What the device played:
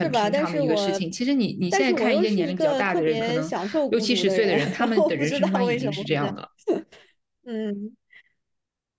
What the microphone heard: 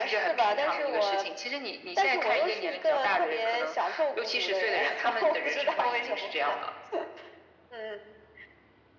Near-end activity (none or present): none